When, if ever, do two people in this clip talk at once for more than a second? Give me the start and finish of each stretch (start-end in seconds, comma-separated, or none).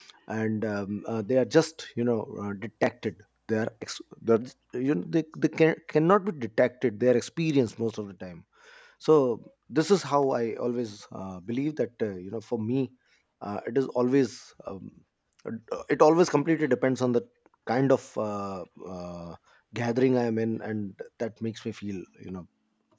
none